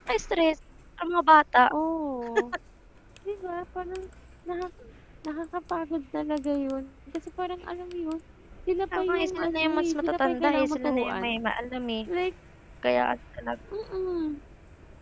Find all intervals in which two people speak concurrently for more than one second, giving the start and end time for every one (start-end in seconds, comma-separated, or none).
8.9-11.4